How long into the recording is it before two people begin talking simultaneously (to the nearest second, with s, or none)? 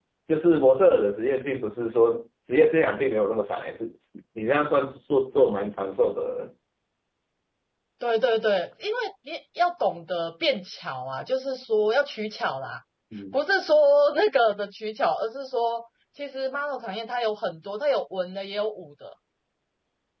none